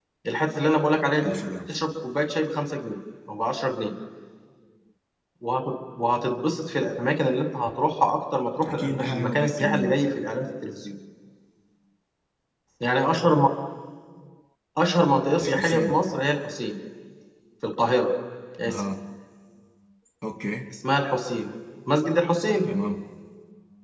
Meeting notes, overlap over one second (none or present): present